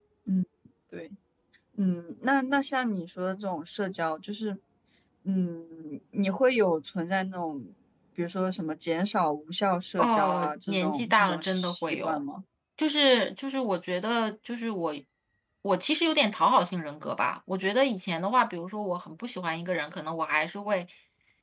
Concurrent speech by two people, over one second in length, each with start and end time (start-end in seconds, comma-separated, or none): 10.0-12.2